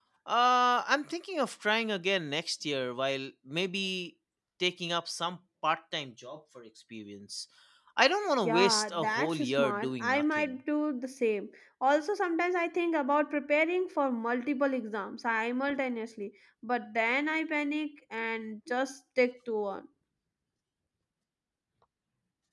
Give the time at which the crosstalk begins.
8.4 s

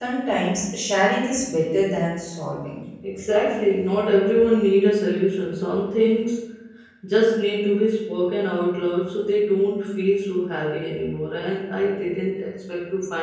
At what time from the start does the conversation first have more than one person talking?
none

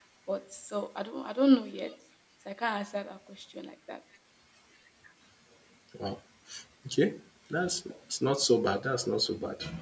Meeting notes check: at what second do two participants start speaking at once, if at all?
none

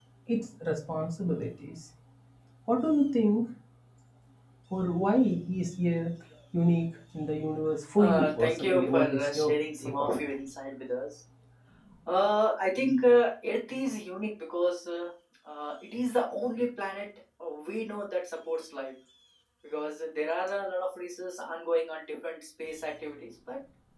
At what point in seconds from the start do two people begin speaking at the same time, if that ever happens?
8.0 s

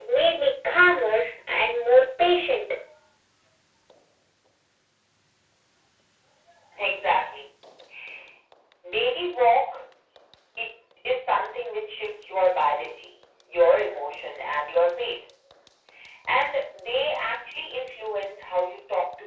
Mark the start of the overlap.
none

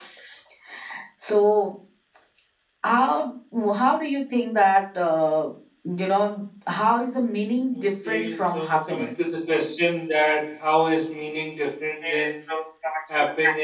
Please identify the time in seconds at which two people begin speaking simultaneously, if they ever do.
7.8 s

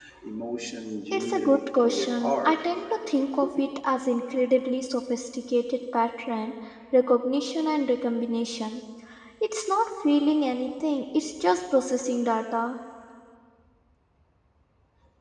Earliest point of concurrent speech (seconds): 1.1 s

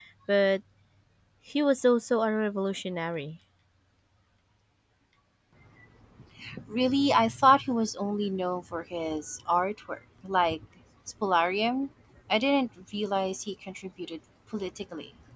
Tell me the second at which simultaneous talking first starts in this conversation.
none

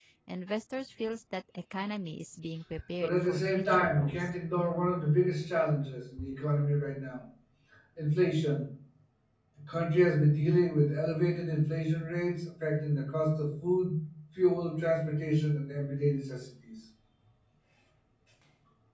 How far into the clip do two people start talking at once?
3.0 s

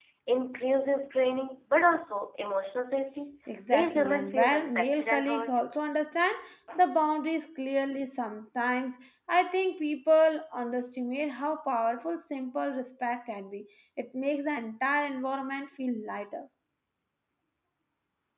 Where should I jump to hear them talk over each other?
3.5 s

